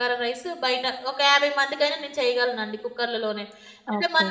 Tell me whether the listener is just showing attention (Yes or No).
No